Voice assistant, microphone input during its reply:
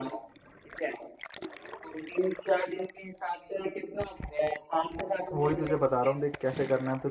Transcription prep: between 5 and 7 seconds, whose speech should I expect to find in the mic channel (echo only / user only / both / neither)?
both